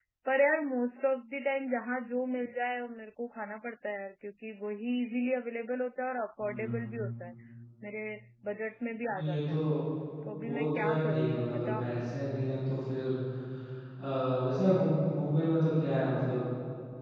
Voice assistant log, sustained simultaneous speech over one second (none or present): present